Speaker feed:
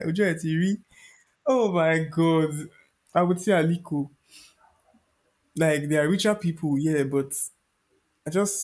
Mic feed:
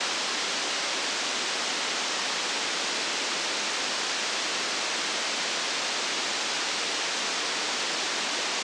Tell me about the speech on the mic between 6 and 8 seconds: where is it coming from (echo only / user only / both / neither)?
neither